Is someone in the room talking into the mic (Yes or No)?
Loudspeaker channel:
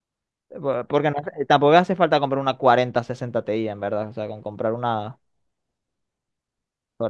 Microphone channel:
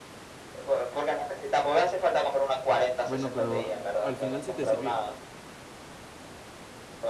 Yes